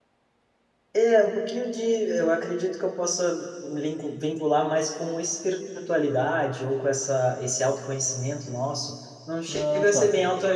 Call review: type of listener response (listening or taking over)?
listening